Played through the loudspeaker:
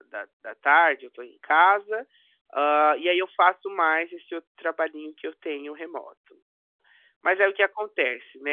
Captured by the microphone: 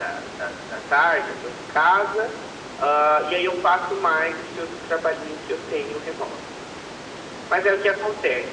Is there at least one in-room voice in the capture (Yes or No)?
No